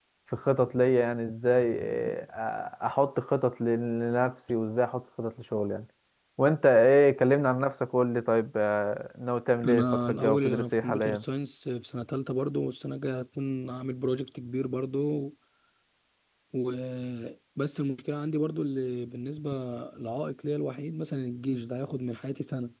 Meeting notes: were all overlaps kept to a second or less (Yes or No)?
No